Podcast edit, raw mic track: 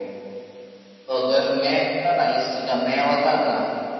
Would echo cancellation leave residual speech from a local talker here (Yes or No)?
No